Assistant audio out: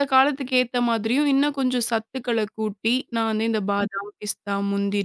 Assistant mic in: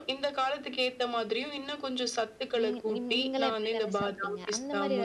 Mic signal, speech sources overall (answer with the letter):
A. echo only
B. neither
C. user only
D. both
D